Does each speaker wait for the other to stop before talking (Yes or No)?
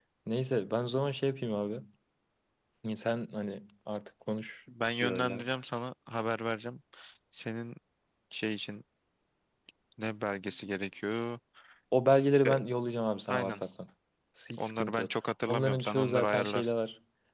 No